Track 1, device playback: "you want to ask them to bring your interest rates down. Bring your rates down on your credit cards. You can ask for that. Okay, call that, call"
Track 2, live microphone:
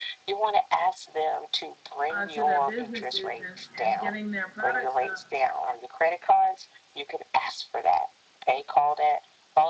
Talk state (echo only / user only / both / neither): both